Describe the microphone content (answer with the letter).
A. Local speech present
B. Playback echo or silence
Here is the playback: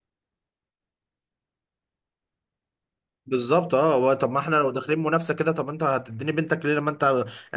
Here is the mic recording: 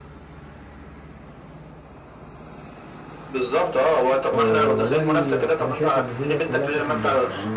A